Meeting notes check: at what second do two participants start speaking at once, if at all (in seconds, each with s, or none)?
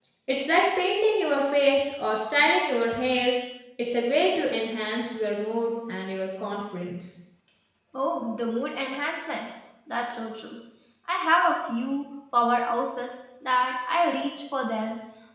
none